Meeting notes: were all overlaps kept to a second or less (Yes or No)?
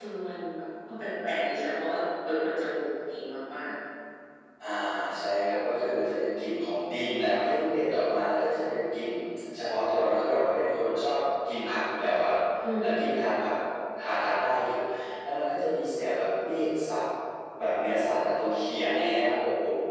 Yes